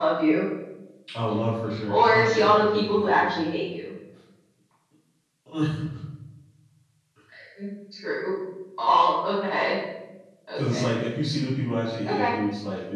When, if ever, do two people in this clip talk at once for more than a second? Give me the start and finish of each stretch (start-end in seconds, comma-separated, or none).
1.9-3.3